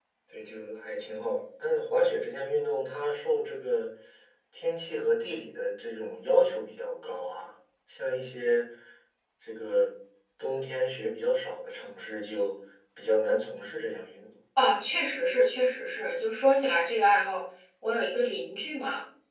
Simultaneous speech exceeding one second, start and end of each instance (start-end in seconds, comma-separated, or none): none